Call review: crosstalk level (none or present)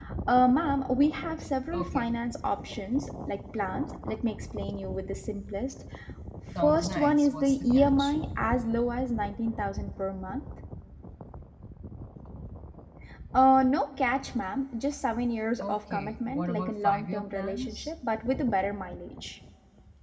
present